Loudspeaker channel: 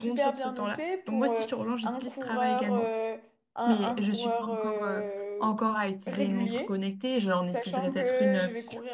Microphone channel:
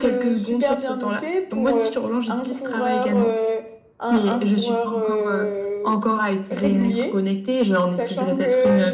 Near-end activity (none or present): none